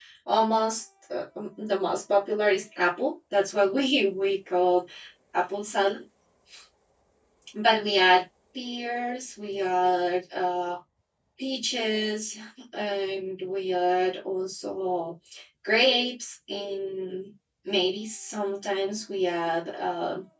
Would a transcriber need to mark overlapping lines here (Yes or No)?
No